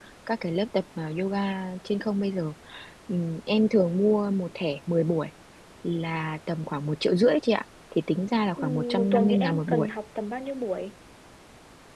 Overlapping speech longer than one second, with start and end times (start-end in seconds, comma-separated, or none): 8.6-9.9